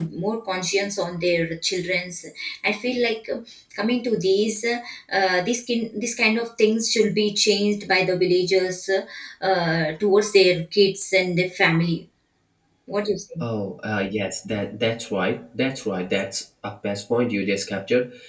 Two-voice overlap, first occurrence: none

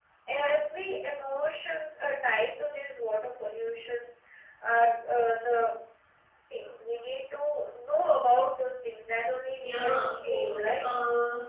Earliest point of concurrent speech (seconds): 9.6 s

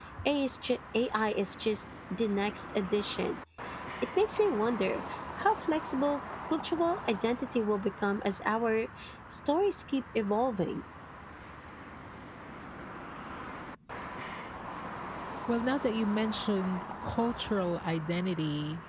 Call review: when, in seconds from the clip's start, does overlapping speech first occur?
none

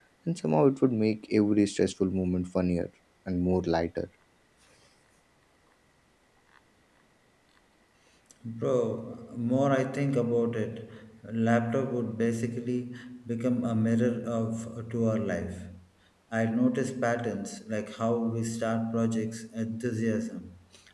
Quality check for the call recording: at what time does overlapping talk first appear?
none

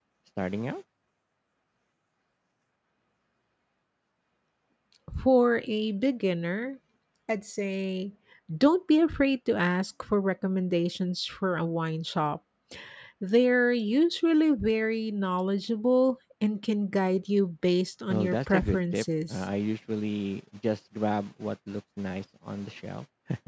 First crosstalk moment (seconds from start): 18.1 s

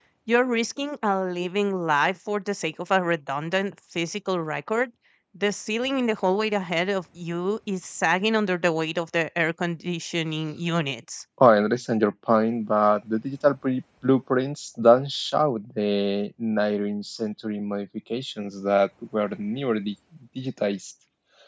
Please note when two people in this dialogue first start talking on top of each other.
none

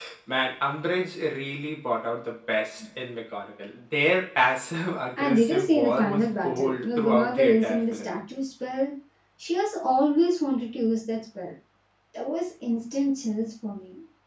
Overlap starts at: 5.2 s

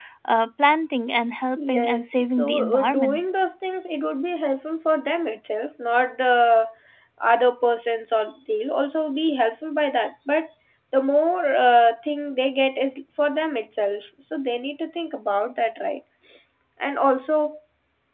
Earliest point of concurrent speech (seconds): 1.6 s

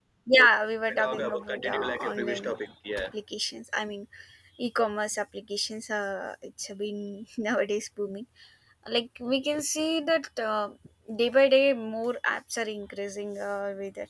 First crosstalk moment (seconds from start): 0.9 s

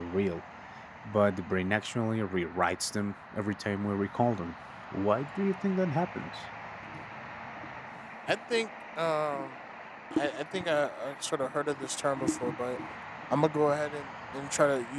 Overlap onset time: none

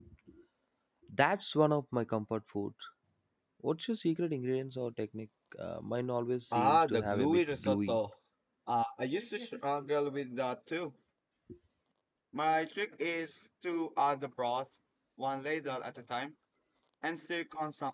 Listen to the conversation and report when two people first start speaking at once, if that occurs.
6.5 s

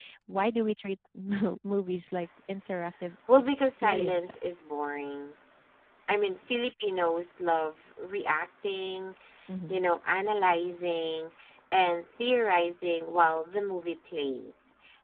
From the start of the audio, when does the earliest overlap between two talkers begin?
3.3 s

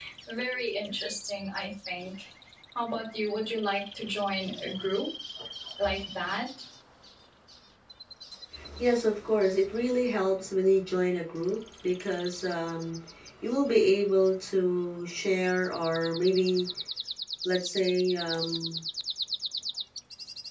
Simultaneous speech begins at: none

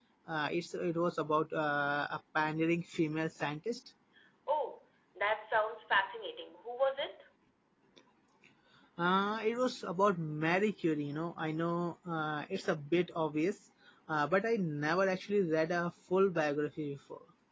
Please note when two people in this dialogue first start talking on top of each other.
none

